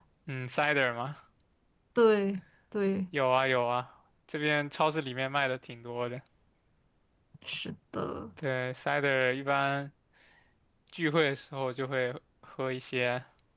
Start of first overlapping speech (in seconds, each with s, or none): none